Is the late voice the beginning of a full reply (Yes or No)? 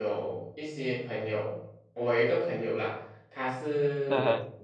No